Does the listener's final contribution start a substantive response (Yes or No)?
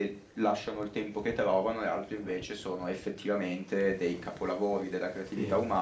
No